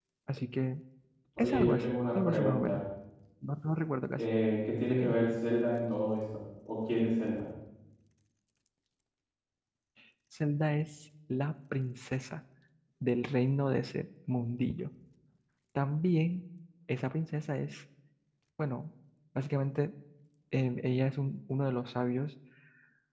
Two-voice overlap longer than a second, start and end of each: 1.4-2.8

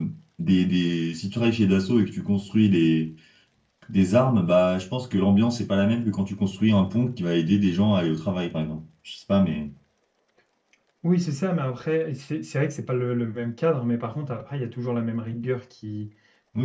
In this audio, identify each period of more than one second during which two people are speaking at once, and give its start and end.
none

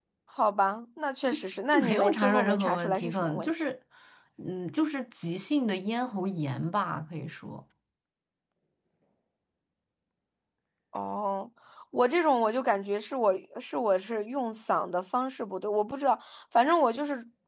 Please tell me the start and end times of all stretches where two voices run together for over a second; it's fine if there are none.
1.7-3.6

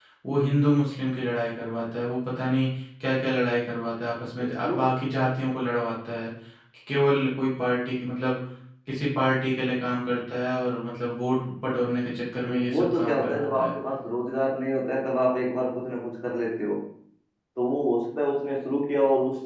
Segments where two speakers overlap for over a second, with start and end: 12.4-13.7

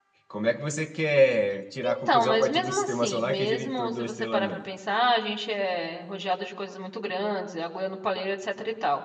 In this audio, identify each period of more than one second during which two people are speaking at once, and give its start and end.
1.8-4.6

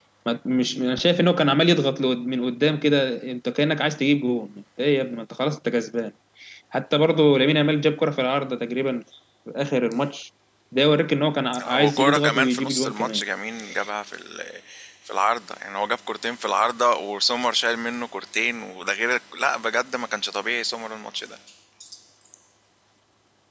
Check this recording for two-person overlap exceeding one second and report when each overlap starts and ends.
11.8-13.2

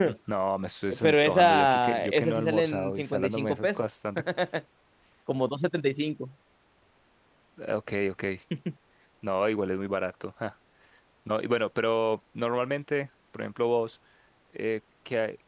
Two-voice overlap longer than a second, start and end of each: 1.0-3.8

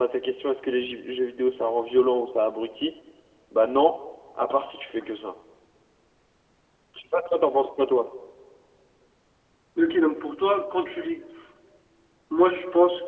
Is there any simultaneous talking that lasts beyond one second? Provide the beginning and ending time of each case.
none

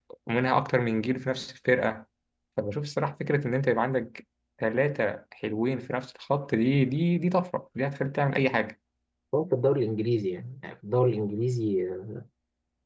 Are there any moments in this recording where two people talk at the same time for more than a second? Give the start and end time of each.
none

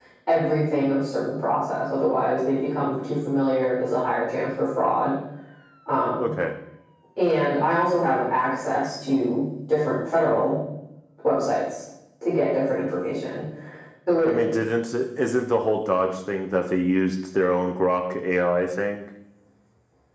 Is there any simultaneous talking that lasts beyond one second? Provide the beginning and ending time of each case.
none

